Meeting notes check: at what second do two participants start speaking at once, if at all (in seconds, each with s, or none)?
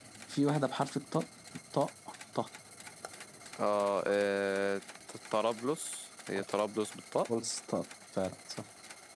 none